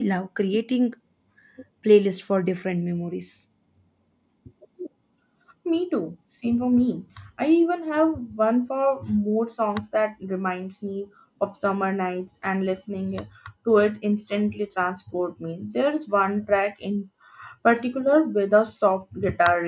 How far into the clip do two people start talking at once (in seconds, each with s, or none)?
none